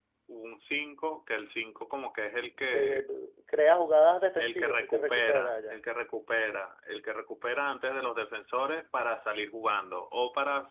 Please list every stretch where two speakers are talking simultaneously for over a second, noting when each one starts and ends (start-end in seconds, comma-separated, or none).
4.4-5.8